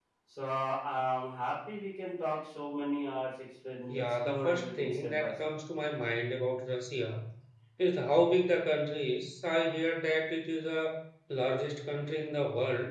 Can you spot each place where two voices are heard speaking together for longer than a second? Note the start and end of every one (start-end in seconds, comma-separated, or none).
3.9-5.3